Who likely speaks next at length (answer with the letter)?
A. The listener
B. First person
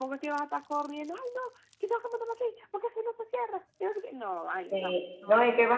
A